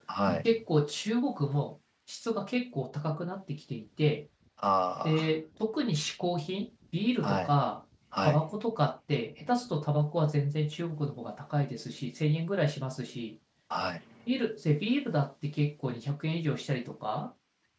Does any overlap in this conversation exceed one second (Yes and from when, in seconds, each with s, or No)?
No